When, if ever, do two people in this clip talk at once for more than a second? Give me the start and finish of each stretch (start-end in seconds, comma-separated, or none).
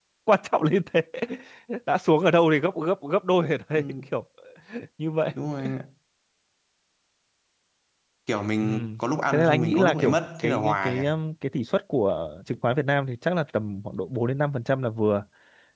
9.3-11.0